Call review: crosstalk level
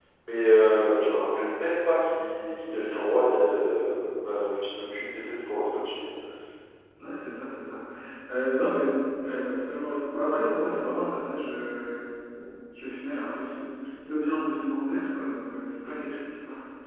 none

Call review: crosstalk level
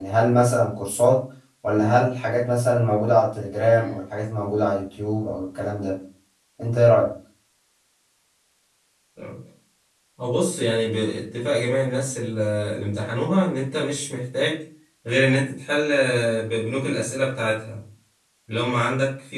none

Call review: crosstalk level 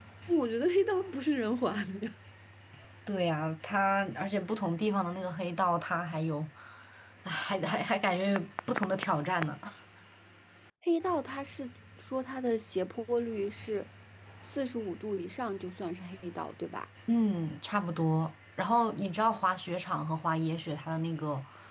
none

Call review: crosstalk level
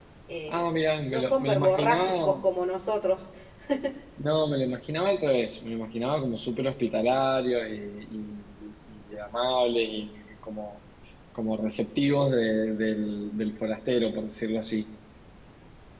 present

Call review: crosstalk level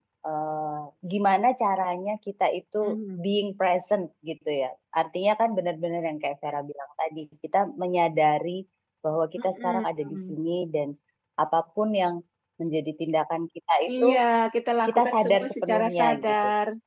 present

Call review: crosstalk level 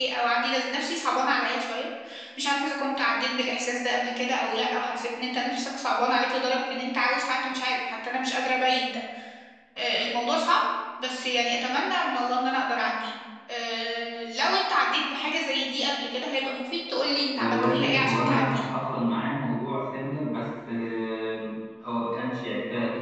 present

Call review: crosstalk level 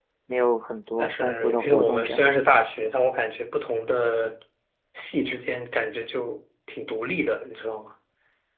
present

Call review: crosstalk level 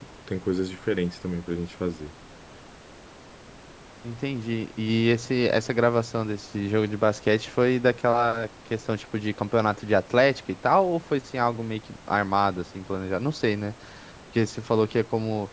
none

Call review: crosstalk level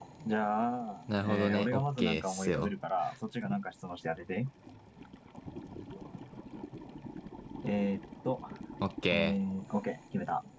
present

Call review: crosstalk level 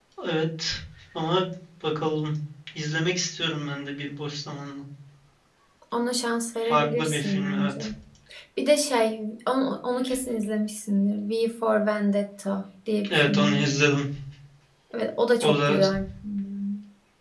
present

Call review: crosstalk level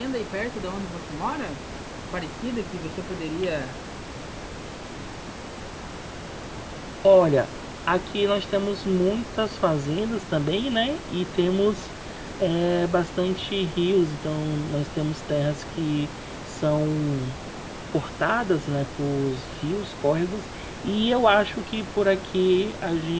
none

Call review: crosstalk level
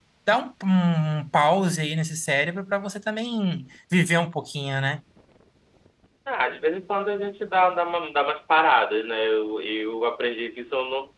none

